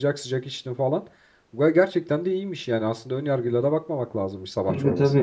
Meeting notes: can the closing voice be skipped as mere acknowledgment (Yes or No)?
No